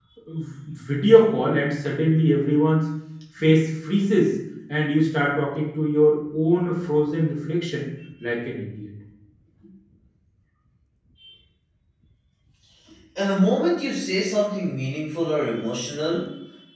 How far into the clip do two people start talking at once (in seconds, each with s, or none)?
none